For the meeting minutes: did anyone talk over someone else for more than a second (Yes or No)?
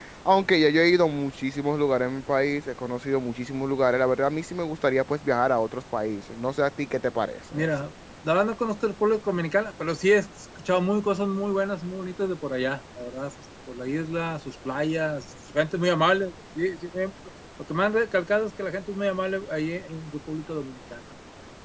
No